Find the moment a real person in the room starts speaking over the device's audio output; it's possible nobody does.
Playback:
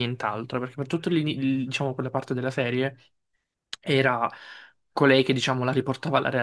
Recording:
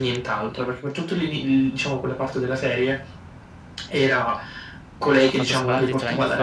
5.3 s

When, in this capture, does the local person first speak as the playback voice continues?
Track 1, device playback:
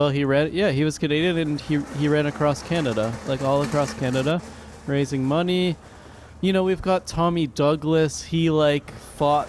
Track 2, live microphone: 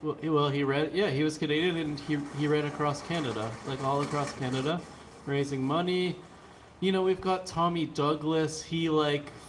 none

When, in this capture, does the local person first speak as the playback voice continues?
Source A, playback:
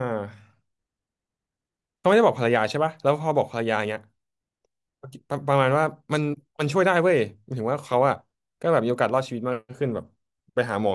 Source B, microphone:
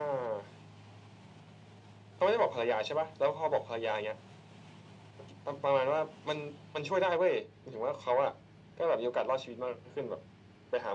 none

